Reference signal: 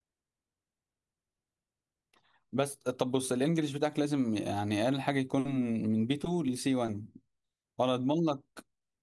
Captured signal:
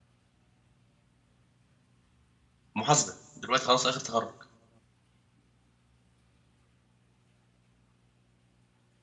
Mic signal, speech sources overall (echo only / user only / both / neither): user only